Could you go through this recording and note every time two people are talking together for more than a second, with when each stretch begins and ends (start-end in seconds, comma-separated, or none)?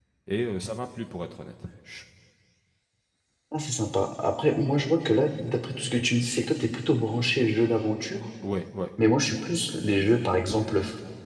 none